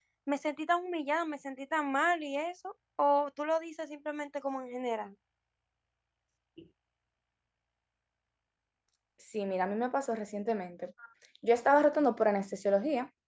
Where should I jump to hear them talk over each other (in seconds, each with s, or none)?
none